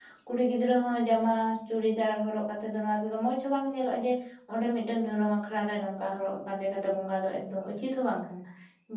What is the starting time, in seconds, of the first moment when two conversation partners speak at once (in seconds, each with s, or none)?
none